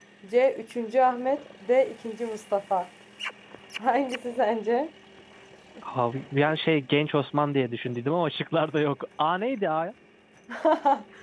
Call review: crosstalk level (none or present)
none